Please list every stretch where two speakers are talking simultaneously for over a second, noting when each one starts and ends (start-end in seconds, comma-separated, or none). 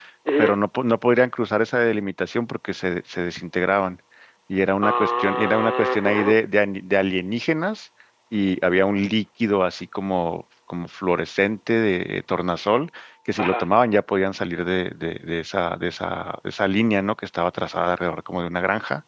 4.8-6.3